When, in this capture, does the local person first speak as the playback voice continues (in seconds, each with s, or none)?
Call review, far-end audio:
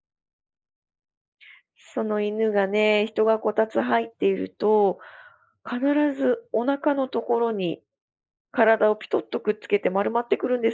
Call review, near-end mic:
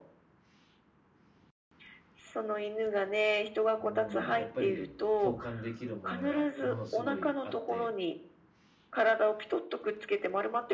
3.8 s